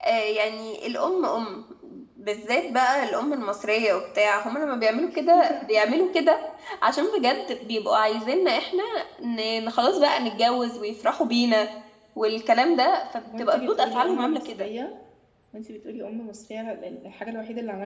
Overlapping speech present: Yes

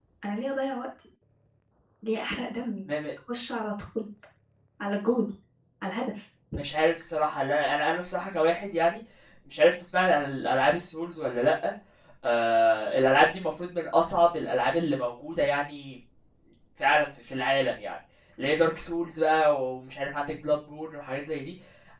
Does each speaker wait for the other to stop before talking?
Yes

